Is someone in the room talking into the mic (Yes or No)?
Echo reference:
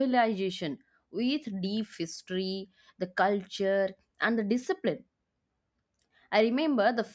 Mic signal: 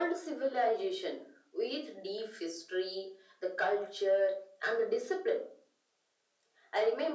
No